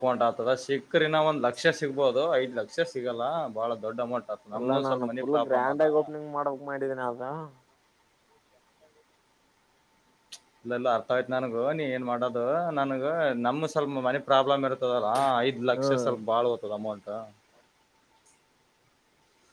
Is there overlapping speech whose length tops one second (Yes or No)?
Yes